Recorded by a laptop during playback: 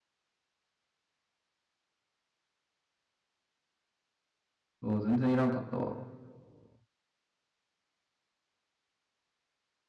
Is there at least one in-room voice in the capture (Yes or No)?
Yes